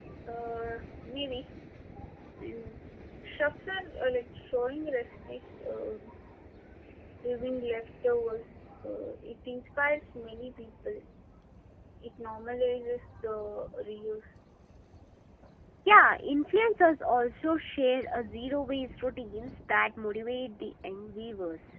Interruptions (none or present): none